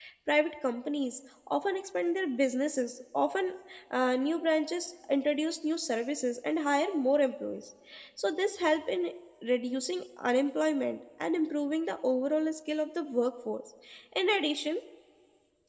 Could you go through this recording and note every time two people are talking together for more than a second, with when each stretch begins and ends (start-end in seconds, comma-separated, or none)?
none